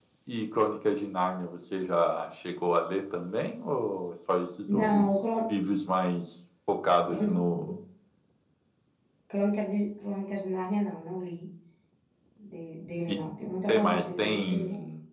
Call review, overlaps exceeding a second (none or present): present